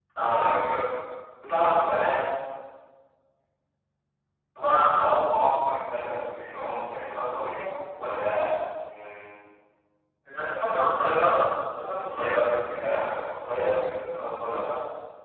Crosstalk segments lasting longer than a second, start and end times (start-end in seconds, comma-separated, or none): none